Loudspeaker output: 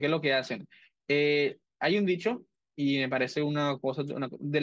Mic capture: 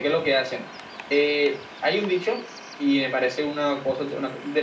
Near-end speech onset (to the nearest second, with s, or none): none